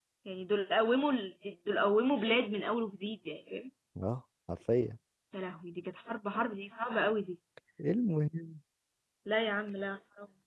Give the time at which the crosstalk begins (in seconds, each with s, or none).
none